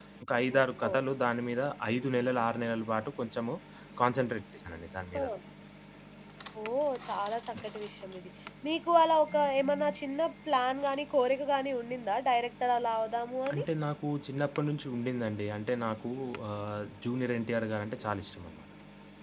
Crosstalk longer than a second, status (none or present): none